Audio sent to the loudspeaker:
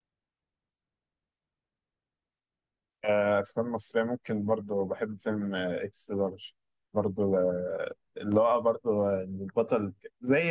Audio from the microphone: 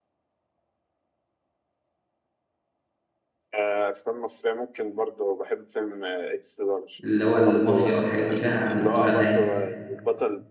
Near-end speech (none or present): present